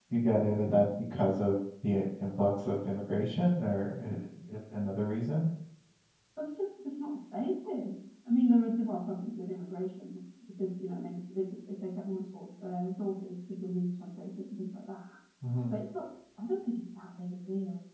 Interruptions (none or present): none